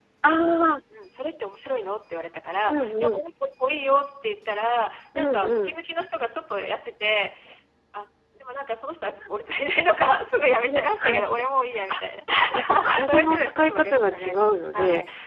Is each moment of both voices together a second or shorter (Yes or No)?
No